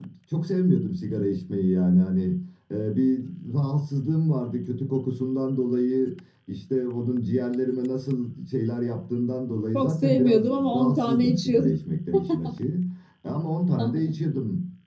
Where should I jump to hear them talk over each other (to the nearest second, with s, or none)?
10 s